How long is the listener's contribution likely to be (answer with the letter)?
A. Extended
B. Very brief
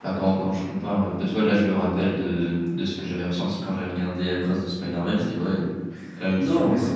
A